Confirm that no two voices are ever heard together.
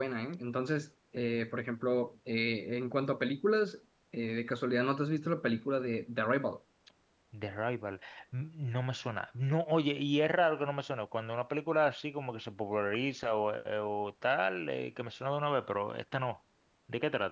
Yes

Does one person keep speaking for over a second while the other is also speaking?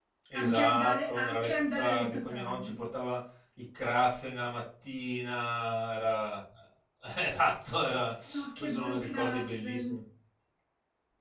Yes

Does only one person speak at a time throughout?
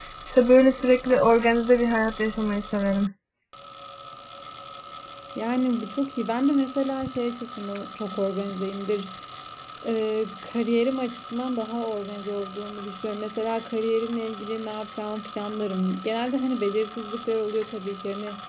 Yes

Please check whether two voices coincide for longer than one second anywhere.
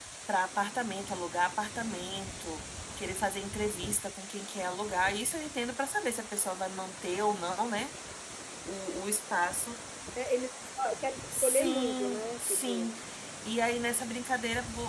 Yes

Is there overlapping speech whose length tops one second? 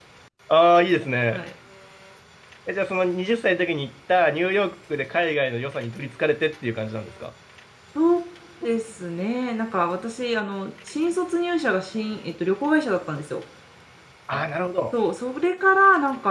No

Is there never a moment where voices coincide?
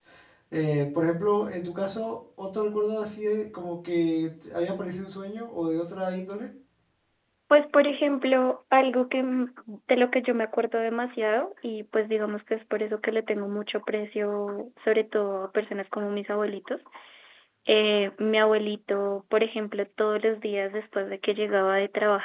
Yes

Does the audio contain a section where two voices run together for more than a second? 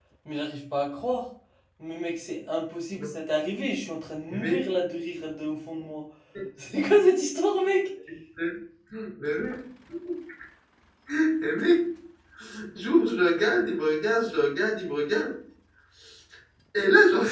No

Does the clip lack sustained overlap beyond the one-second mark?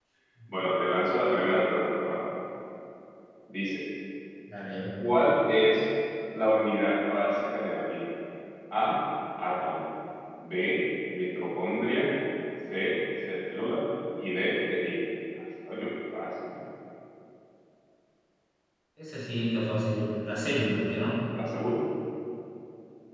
Yes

